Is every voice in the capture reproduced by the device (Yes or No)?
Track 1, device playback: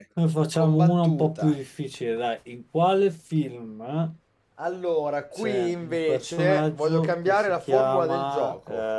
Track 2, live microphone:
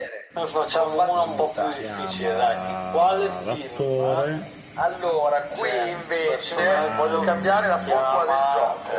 No